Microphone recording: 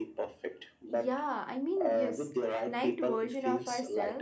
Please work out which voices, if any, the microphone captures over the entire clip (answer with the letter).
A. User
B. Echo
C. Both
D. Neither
C